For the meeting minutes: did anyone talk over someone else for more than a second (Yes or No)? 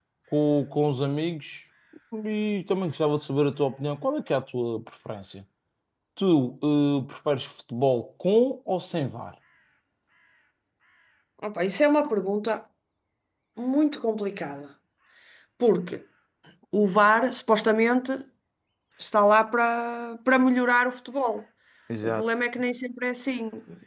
No